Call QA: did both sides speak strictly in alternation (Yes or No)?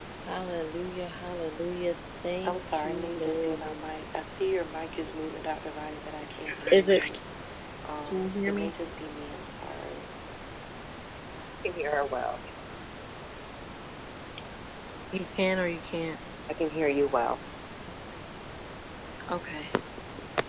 No